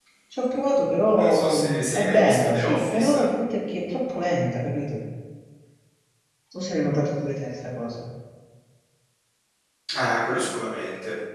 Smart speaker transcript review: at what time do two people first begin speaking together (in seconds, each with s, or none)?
1.2 s